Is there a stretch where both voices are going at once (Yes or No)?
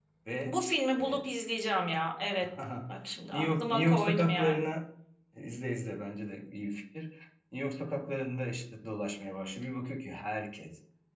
Yes